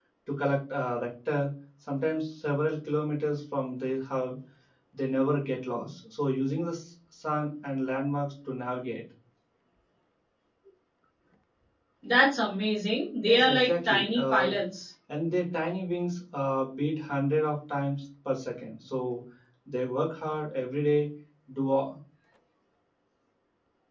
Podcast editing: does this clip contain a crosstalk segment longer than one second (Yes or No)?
Yes